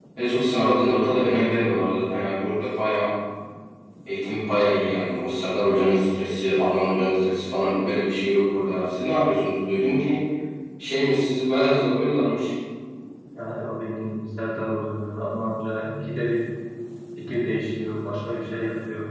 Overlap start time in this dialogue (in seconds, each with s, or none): none